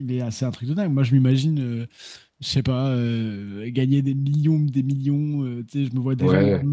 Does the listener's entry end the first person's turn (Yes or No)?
No